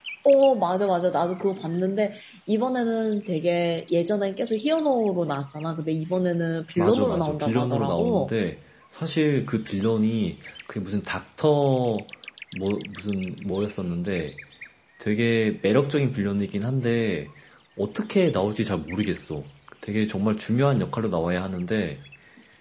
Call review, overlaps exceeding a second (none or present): present